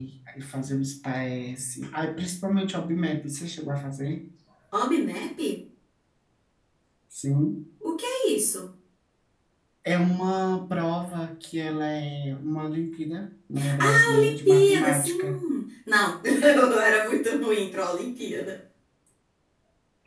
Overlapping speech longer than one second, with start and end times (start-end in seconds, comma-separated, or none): 13.8-15.4